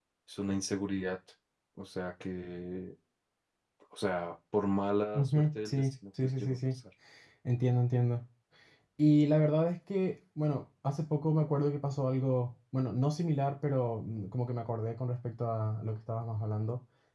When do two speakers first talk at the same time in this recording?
5.1 s

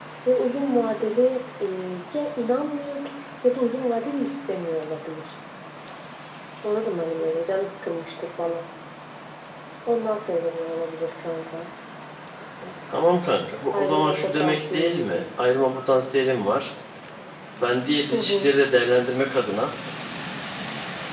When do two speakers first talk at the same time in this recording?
13.7 s

